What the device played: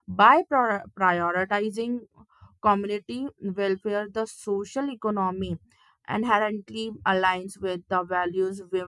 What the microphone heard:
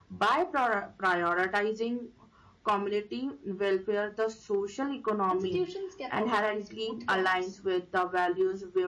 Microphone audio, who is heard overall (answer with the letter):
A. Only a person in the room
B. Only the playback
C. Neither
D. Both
D